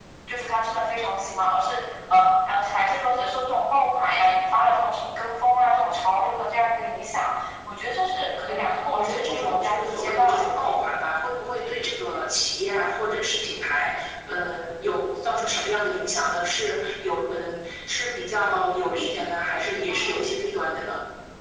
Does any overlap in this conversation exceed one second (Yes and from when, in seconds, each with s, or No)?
Yes, from 8.5 s